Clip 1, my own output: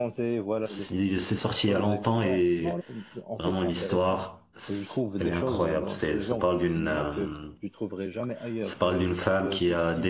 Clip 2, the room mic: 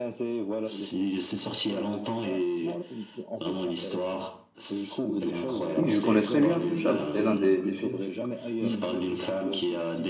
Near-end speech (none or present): present